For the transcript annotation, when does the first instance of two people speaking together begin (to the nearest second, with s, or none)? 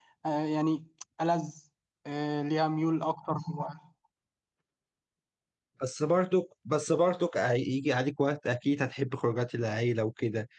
none